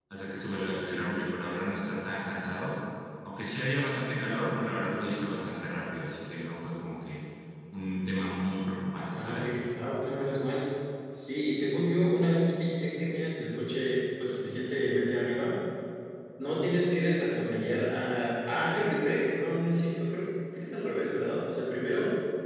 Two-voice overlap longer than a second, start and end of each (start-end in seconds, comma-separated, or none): none